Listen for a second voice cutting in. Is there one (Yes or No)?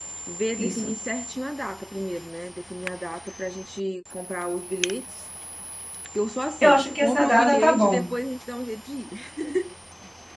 Yes